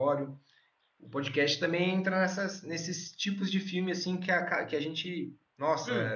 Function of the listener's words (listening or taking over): listening